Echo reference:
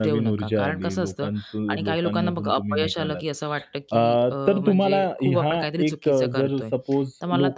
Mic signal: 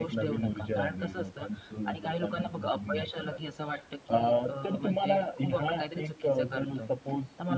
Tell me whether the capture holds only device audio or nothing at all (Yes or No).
Yes